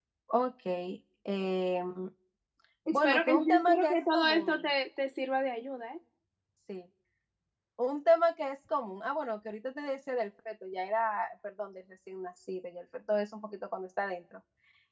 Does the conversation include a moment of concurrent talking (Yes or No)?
Yes